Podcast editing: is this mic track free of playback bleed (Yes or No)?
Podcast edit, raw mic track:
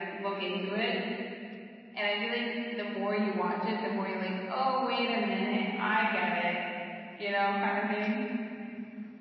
No